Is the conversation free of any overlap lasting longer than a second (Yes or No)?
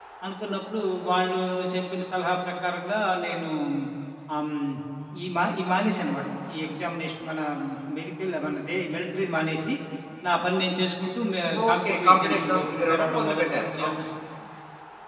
No